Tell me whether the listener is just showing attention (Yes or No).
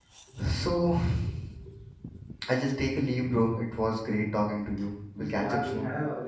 No